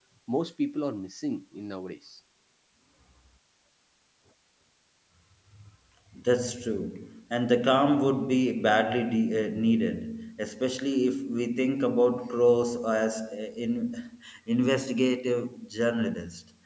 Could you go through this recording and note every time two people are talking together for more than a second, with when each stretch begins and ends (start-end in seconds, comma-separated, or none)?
none